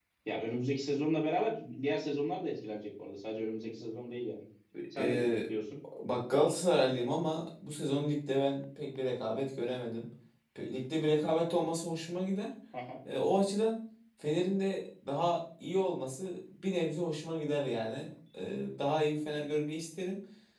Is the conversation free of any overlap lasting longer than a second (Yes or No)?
Yes